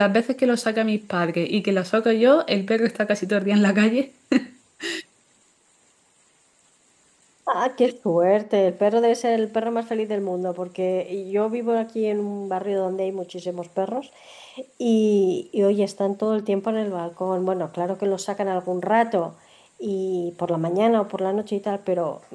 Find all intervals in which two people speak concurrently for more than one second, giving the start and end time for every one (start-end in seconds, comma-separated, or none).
none